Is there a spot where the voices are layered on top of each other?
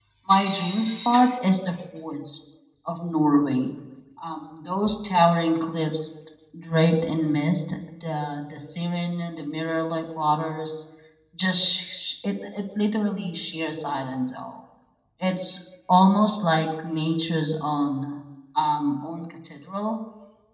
No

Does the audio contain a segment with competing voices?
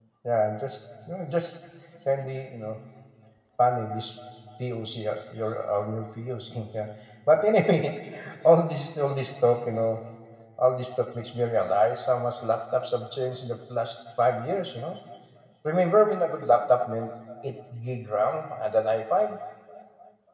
No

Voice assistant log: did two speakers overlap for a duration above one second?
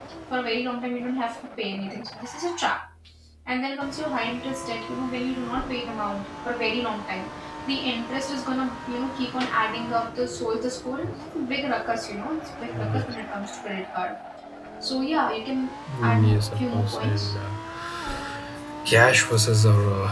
Yes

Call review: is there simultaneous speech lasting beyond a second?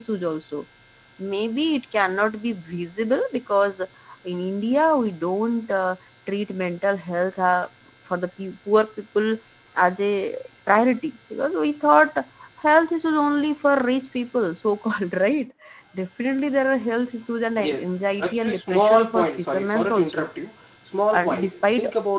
Yes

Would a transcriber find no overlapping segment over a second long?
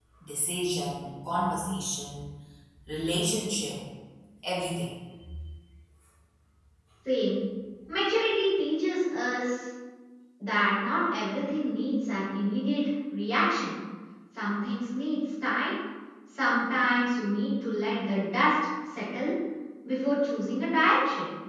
Yes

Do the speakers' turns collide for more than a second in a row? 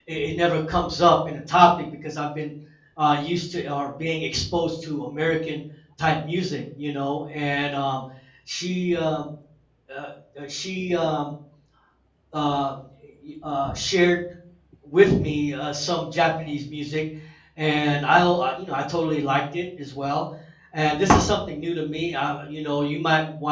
No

